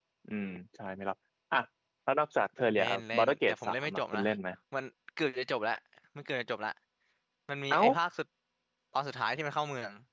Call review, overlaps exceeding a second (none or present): present